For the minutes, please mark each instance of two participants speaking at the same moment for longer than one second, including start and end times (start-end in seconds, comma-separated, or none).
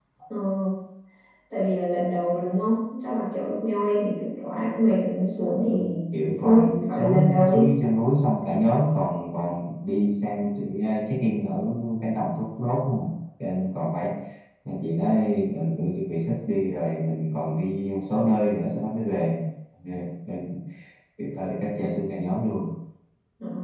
6.4-7.7